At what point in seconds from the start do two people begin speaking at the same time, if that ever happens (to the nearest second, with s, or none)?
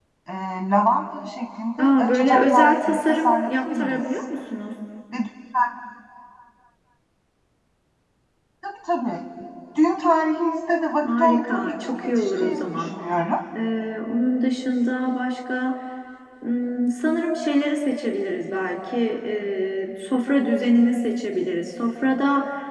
2 s